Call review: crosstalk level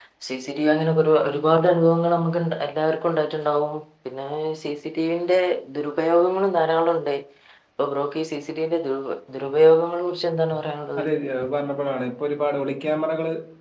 none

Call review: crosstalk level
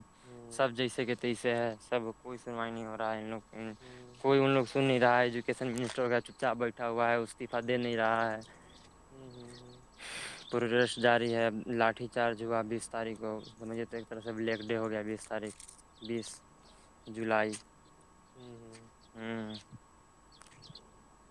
none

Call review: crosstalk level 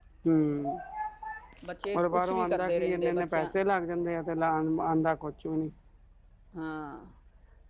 present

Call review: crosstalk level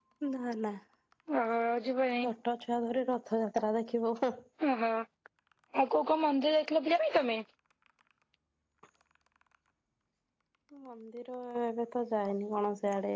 none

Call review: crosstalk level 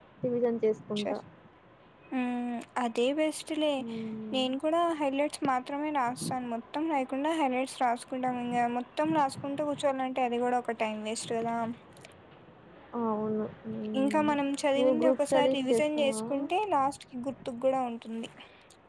present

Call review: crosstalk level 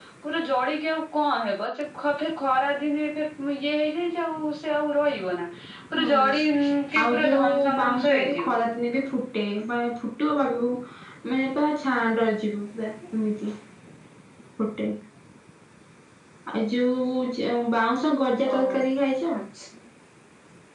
present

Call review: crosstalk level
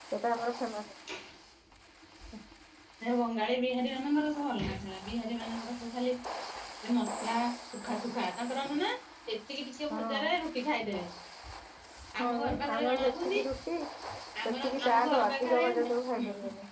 present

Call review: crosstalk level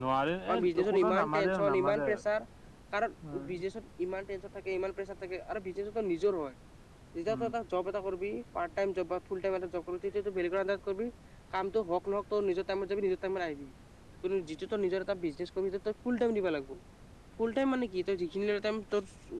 present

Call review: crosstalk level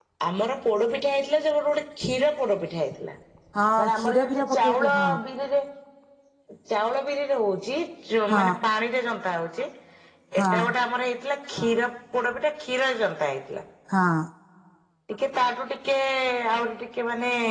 present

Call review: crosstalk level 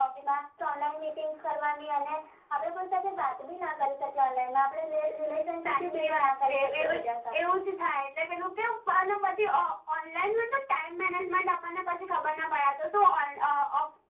present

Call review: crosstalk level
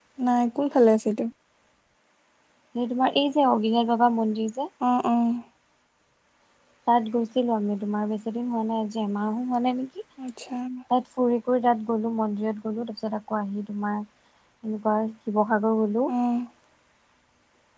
none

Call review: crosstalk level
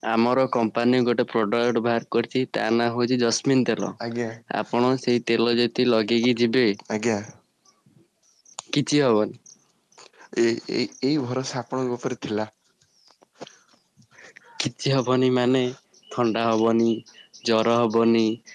none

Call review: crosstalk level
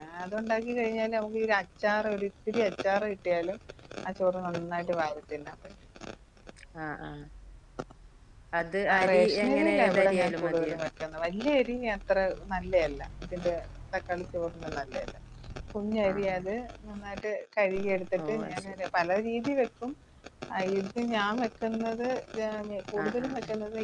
present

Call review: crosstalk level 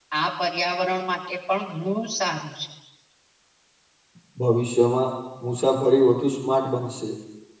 none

